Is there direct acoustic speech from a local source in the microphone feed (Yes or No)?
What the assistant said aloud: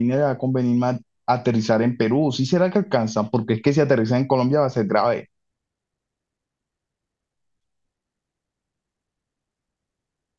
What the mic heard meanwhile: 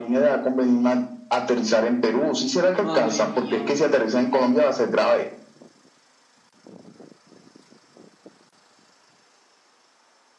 Yes